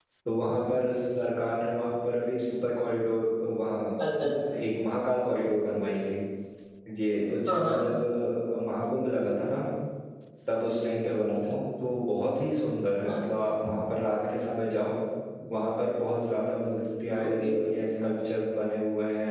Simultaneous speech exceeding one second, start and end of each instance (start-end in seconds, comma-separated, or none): none